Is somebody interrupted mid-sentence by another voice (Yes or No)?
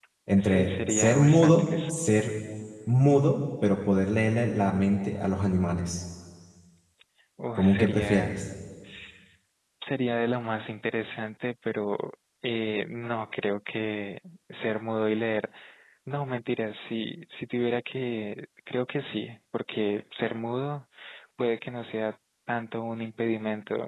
Yes